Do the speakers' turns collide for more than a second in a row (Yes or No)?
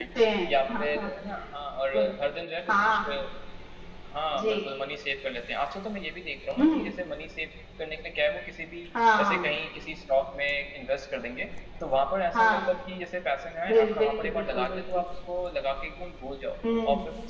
Yes